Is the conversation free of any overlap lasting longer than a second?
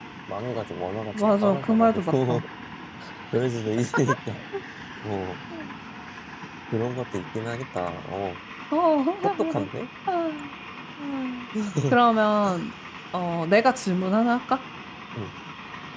No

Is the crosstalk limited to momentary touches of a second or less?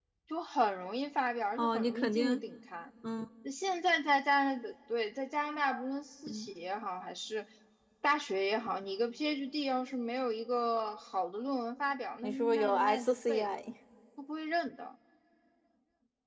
No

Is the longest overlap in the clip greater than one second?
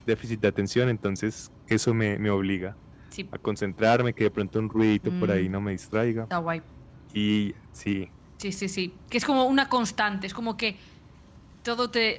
No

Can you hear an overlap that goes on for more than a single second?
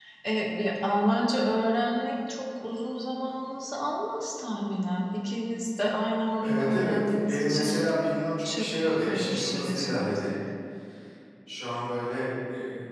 Yes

